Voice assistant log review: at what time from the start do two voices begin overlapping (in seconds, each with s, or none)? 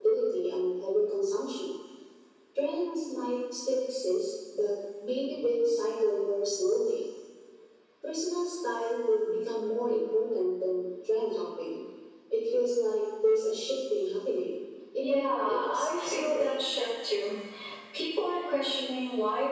15.0 s